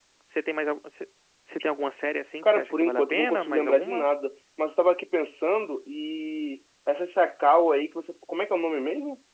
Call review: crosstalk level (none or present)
present